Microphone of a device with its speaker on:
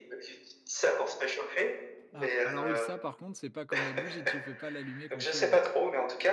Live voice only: Ah! Alors, oui, ça, par contre, c'est pas comme la bougie, tu peux pas l'allumer quand tu veux.

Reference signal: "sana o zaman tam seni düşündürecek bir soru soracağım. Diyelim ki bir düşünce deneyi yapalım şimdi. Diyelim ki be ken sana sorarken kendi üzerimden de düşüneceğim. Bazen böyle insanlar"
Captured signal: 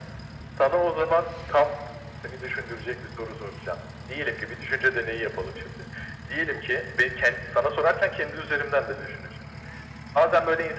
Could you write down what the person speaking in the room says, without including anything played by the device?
none

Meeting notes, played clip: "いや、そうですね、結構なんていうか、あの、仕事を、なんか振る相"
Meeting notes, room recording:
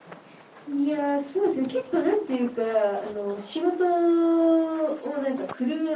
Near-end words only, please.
none

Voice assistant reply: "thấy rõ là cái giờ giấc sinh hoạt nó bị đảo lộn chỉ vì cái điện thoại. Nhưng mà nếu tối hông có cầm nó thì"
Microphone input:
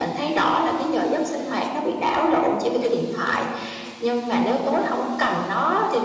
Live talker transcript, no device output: none

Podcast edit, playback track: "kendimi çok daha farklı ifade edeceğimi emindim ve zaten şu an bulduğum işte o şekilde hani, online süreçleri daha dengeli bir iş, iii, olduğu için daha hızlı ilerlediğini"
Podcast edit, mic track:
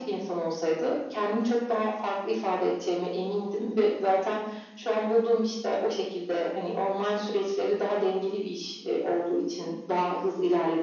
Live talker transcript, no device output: none

